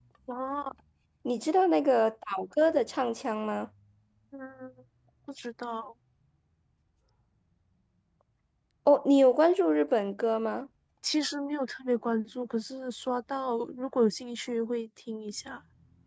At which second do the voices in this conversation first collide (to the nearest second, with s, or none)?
none